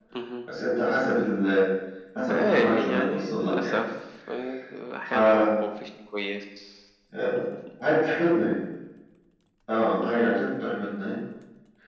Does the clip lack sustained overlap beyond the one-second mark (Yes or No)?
No